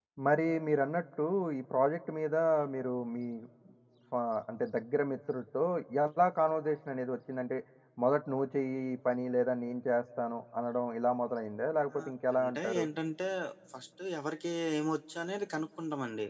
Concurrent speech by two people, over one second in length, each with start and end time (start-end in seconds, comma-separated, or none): none